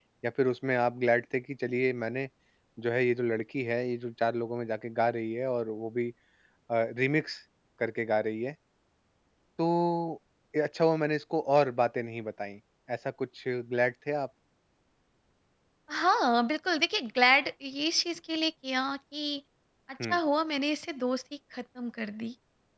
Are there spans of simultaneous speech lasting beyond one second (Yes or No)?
No